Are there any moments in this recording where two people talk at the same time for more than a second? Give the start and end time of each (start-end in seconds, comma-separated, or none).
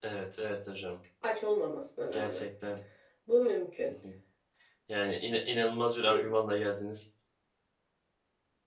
none